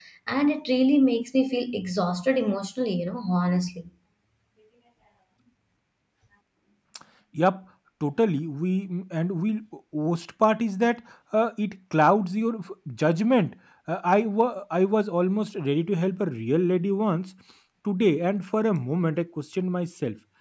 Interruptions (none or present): none